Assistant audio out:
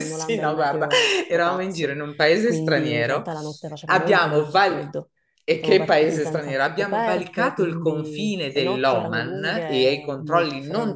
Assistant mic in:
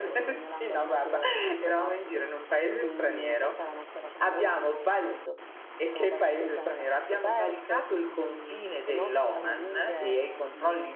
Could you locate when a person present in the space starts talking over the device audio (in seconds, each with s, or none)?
none